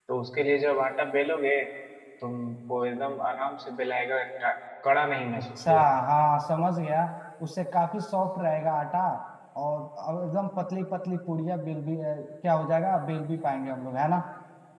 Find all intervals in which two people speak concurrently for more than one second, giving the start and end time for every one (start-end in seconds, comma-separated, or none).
none